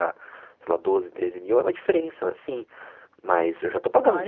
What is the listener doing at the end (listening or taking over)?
taking over